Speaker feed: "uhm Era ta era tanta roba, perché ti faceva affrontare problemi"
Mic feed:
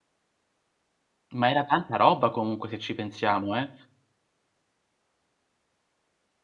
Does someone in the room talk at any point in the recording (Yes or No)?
Yes